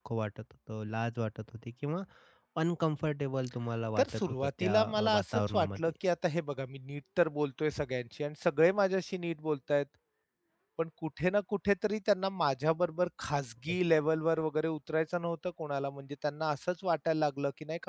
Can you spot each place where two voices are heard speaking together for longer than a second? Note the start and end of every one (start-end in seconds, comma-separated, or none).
4.0-5.9